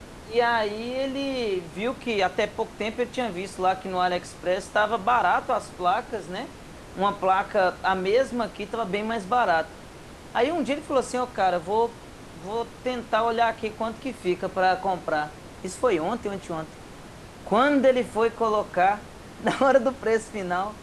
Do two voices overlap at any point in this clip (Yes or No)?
No